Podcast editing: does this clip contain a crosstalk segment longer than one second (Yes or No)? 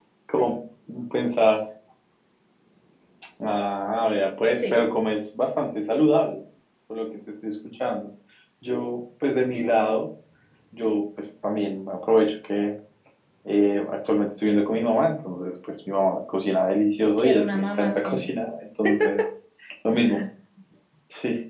Yes